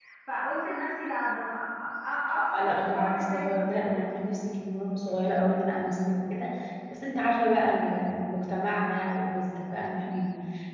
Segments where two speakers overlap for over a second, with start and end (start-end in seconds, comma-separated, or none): 2.6-4.1